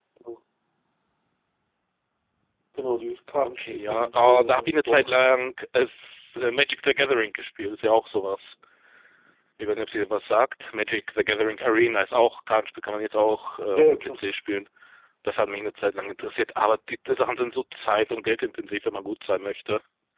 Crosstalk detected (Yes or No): Yes